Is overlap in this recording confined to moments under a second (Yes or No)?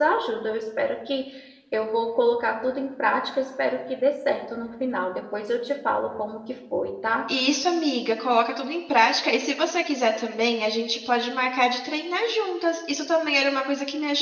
Yes